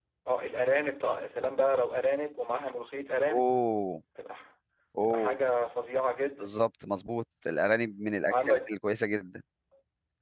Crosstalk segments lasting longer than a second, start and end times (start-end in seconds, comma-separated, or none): none